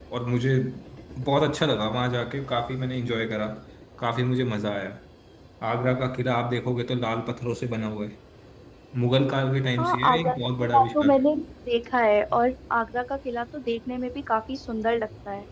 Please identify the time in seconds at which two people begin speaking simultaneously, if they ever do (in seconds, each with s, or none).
9.8 s